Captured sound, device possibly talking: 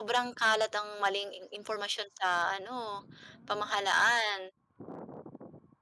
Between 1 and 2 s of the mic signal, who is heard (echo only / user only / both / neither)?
user only